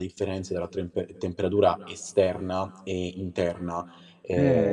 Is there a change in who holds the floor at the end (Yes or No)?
Yes